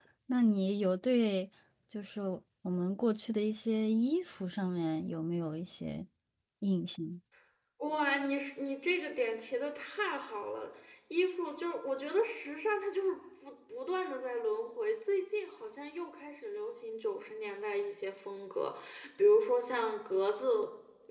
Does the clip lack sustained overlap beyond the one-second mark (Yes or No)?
Yes